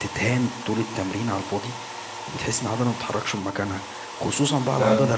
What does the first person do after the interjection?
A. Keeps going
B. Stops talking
A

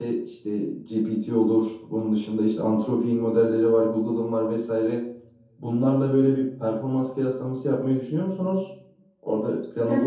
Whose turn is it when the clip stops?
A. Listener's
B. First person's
A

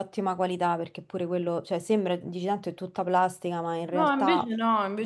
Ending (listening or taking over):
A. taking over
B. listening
A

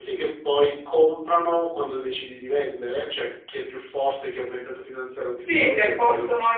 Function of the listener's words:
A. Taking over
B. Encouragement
A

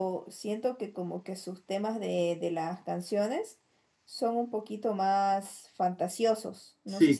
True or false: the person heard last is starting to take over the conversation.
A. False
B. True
B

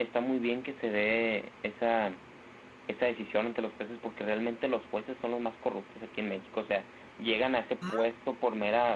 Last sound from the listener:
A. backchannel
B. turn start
A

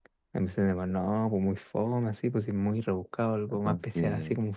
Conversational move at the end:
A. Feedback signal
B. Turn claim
A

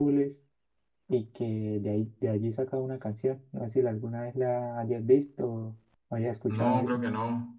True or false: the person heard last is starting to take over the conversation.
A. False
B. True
B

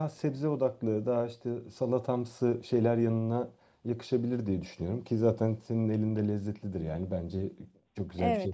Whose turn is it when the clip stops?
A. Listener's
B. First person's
A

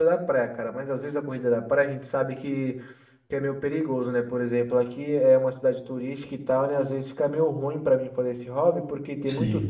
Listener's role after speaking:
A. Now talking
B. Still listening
B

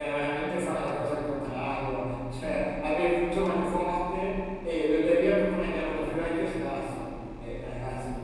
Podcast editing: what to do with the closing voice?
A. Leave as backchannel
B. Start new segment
A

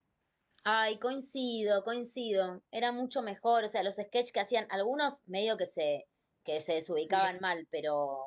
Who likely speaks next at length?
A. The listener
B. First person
B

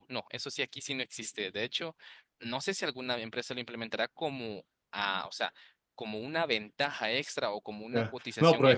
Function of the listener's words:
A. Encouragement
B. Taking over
B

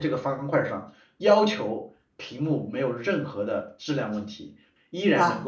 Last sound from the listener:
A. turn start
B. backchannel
B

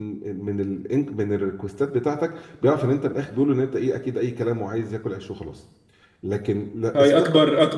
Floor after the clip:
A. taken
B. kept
A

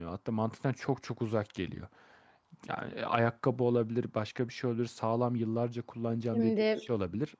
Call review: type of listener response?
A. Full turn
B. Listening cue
B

